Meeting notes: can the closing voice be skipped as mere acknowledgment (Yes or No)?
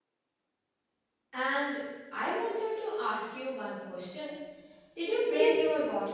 No